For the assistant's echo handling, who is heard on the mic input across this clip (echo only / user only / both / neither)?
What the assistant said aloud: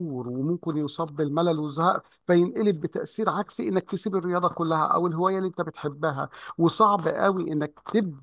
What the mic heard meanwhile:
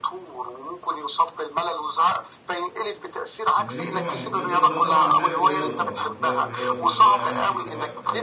both